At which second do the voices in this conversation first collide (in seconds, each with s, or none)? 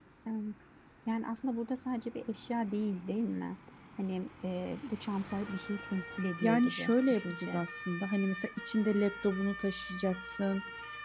6.4 s